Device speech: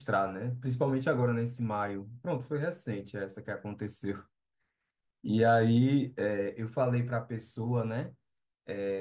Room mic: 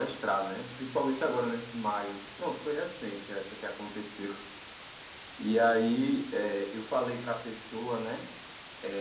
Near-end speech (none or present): none